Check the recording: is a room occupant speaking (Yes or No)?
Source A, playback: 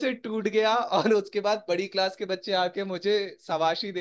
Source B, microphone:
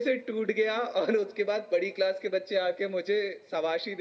No